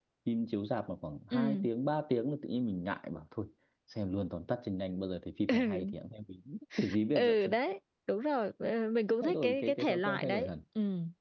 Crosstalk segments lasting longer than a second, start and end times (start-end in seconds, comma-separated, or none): 9.2-10.5